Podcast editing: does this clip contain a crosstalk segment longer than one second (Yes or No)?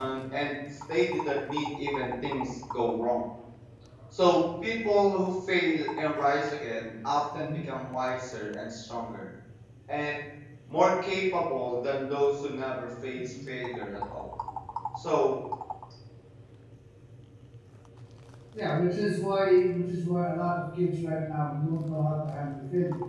No